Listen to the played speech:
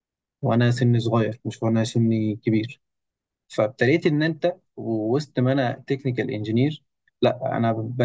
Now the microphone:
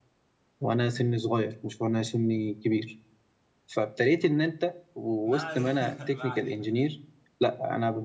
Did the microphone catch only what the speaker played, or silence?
No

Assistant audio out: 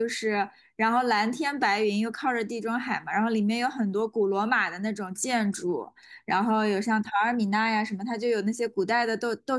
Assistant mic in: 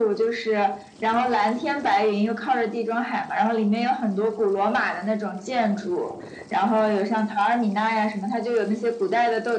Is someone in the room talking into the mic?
No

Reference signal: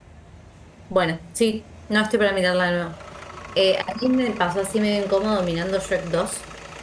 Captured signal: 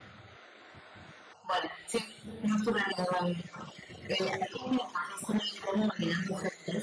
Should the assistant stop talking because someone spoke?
No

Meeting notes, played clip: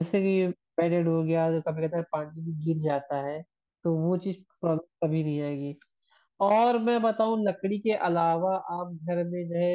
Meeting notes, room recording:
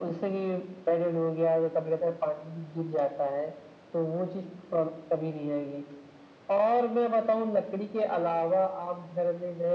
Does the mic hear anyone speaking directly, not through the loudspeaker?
No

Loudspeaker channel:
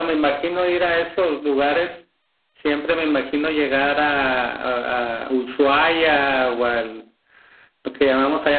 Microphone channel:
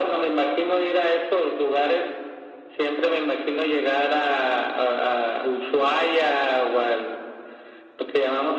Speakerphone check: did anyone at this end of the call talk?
No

